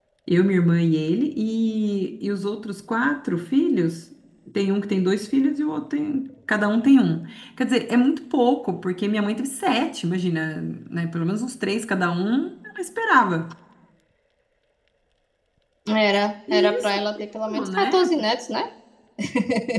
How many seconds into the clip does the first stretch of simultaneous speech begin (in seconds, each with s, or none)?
16.5 s